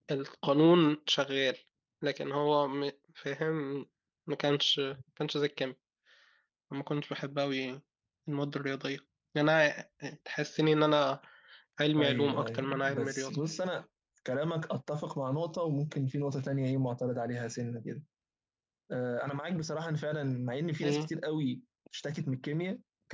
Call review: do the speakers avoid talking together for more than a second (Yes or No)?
No